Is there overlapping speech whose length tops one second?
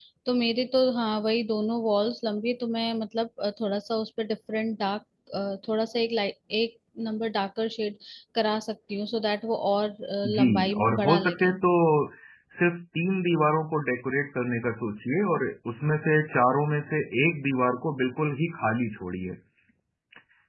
Yes, from 10.2 s

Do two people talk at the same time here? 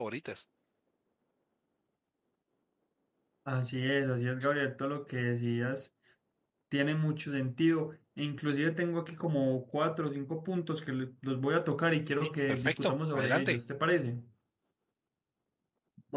Yes, from 12.2 s

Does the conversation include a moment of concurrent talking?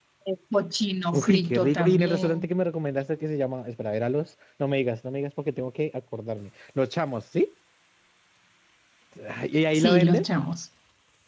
Yes, from 1.1 s

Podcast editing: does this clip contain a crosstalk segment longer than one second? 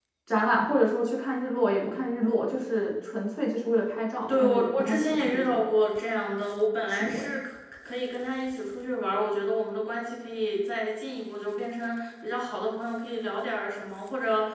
Yes, from 4.3 s

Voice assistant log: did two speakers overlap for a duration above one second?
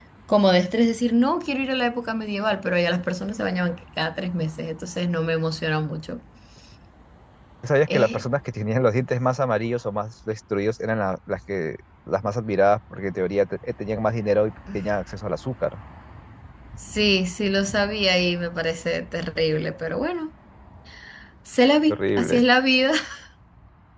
No

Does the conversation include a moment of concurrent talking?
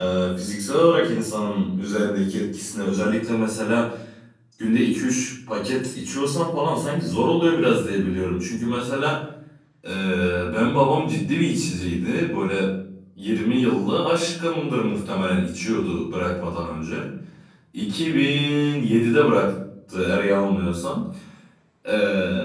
No

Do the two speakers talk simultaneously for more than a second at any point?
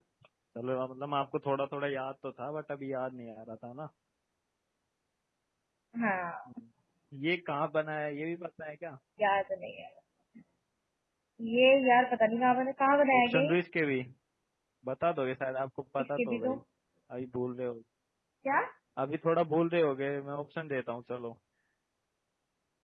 No

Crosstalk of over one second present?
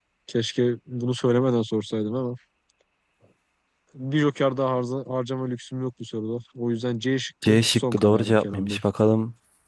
Yes, from 7.4 s

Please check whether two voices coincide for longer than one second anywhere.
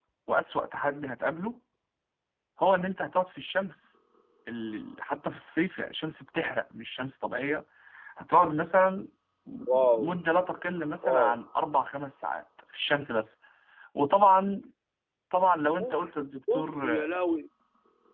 No

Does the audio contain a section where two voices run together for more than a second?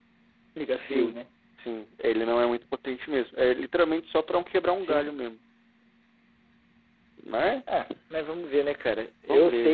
No

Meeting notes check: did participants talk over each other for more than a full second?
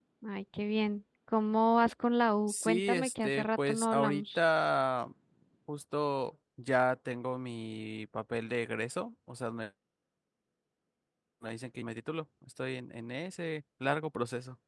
Yes, from 2.5 s

